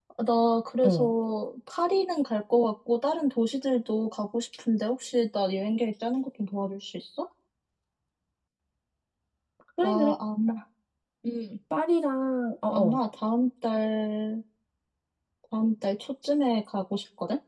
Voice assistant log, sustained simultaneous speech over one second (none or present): none